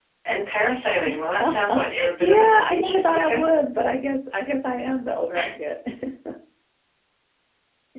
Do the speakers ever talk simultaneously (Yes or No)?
Yes